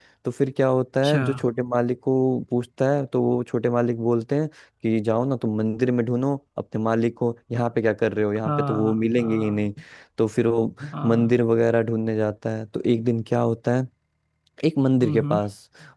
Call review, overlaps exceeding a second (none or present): present